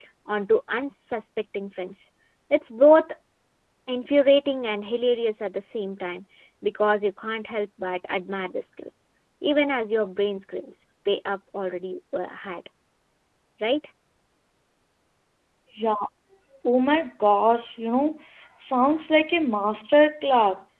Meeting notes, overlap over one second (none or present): none